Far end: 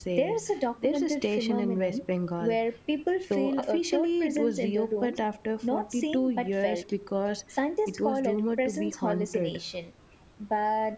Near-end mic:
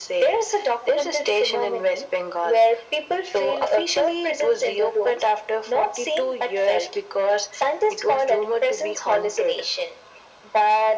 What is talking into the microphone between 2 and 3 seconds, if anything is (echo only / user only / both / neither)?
echo only